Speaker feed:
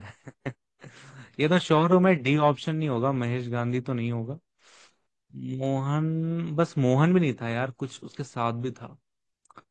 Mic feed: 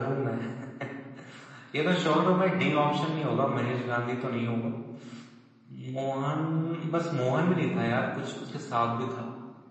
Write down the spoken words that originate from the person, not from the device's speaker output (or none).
none